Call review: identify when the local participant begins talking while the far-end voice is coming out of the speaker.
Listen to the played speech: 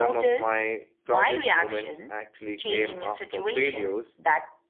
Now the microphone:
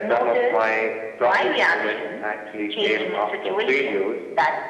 none

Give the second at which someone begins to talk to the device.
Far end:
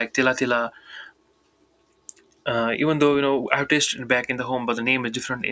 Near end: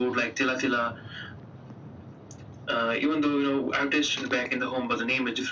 none

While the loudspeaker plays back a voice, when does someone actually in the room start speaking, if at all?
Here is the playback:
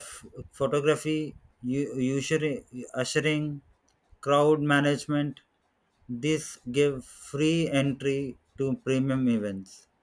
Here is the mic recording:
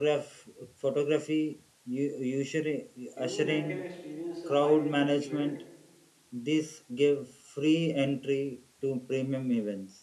3.1 s

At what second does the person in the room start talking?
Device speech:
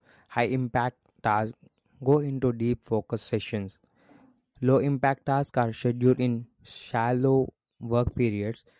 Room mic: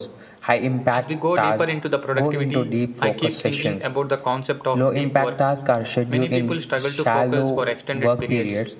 0.9 s

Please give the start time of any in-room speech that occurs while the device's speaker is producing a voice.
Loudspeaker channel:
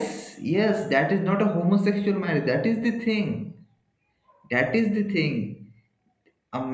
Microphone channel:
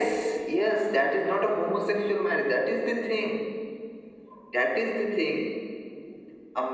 none

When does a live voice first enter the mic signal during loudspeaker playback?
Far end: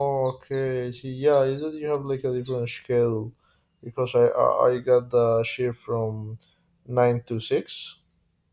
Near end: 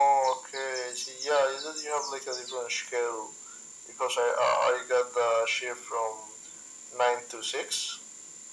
none

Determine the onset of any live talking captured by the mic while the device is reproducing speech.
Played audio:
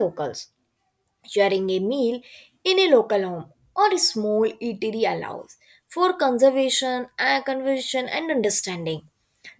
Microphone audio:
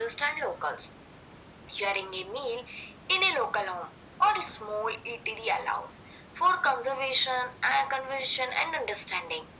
none

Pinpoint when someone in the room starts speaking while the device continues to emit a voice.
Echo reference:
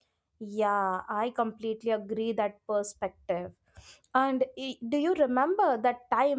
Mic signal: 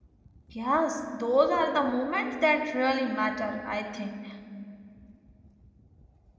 0.5 s

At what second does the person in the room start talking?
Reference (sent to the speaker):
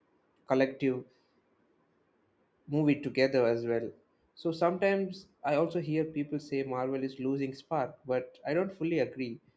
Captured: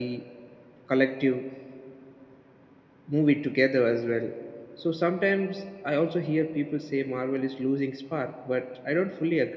none

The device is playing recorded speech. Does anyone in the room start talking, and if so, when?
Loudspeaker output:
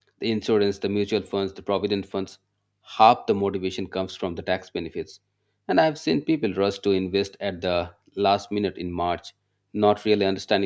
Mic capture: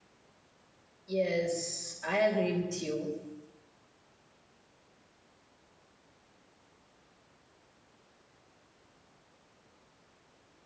1.1 s

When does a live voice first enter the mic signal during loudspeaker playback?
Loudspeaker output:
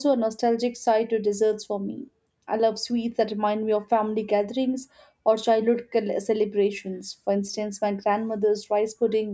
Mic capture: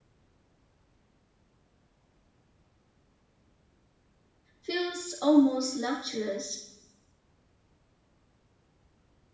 4.6 s

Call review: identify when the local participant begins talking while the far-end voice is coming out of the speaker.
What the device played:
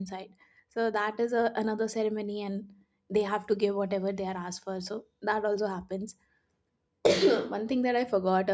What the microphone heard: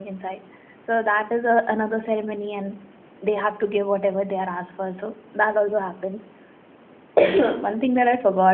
none

